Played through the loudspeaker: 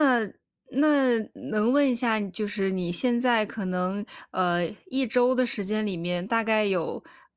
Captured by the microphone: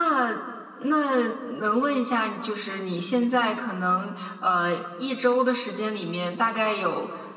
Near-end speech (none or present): none